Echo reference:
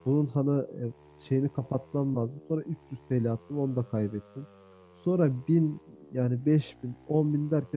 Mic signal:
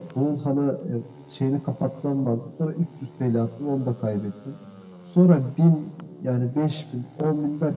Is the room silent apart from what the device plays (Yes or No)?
Yes